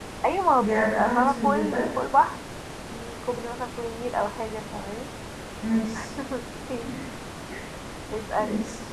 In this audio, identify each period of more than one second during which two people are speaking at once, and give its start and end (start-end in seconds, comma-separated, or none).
0.6-1.9